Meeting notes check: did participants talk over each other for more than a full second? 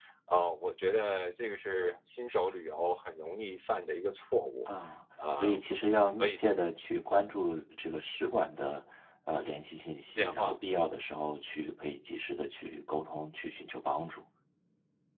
No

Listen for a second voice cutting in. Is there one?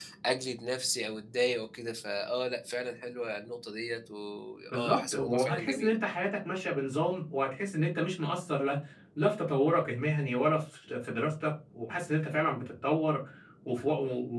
Yes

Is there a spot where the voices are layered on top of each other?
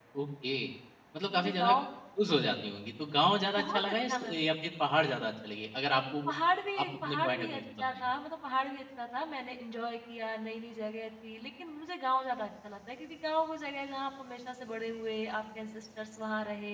Yes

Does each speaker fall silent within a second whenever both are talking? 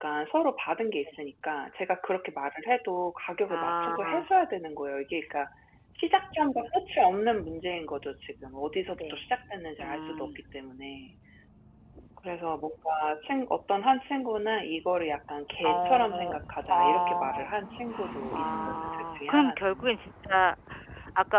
No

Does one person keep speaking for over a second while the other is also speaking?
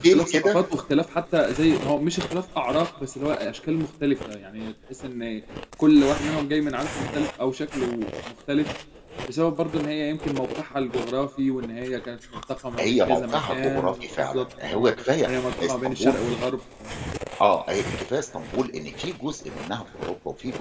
Yes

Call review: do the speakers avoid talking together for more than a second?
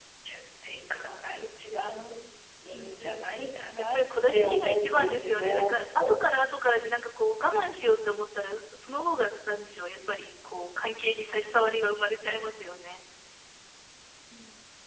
No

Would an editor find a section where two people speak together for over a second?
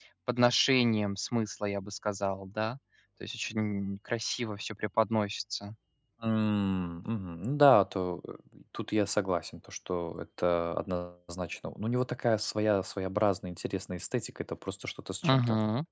No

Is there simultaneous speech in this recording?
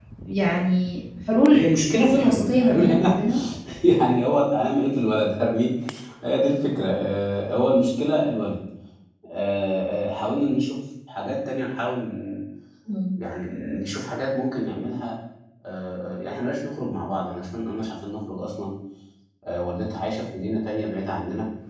Yes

